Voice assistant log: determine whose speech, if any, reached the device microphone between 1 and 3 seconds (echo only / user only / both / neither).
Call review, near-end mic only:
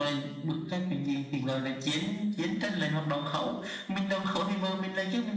echo only